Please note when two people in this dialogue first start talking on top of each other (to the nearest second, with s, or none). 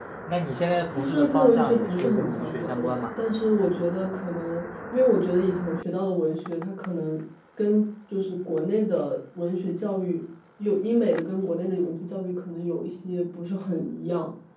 1 s